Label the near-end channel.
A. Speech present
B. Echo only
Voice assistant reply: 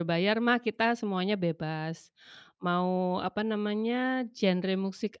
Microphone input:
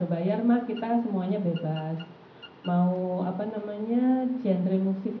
B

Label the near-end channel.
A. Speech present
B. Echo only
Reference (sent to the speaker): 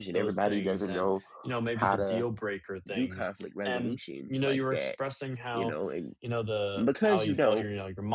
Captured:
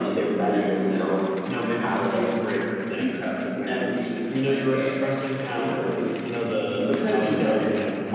B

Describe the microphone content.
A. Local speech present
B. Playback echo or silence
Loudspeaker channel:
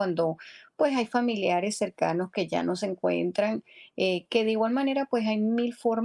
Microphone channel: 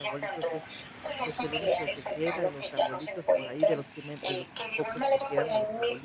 A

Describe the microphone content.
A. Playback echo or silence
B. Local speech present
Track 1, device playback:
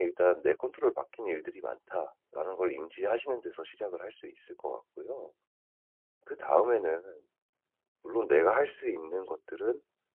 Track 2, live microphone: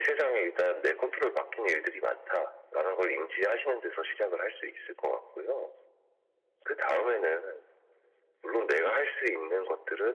A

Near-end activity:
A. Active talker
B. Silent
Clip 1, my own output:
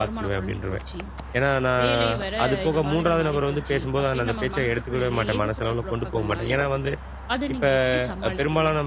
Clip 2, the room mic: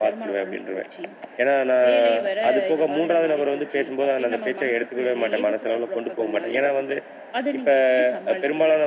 B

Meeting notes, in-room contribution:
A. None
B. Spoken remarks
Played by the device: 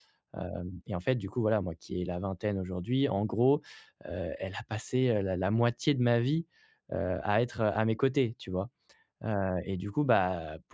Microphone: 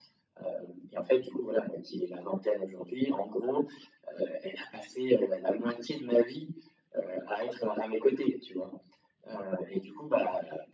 A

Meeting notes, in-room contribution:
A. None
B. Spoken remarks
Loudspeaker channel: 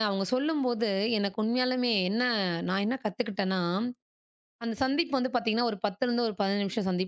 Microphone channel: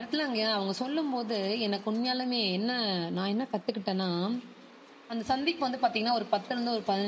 A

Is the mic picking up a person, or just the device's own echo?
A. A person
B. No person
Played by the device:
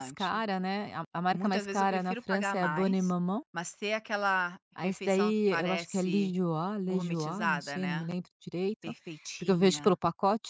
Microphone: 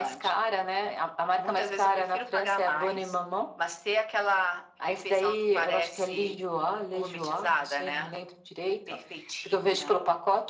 B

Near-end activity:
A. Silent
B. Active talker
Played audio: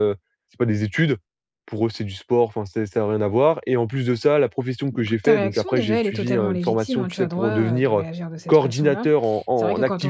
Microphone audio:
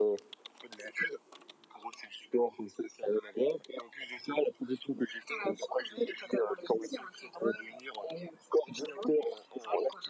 A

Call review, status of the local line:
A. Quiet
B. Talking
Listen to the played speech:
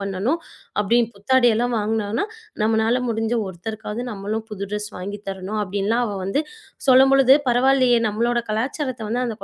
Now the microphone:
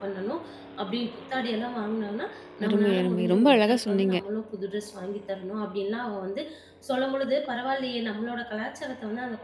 B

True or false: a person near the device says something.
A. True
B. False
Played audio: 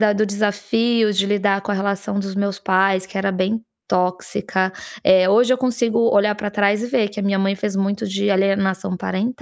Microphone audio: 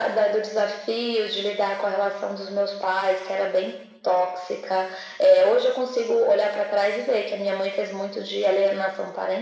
B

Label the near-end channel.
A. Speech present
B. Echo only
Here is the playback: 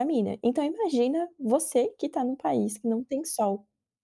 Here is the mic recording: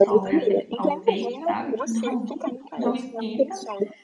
A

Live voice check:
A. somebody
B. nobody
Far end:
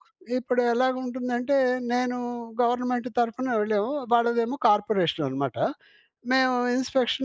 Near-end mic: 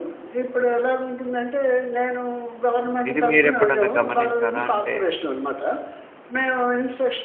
A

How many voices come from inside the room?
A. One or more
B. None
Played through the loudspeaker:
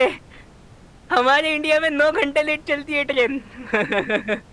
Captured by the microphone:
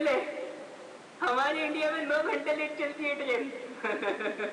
B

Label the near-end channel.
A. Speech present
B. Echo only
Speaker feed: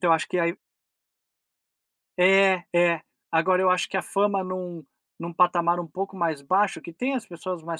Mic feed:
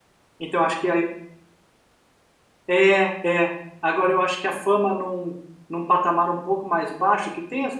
B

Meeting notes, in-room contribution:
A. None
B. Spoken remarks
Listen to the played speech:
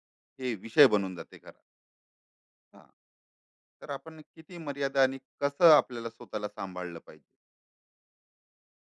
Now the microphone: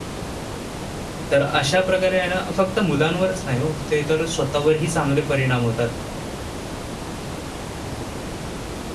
B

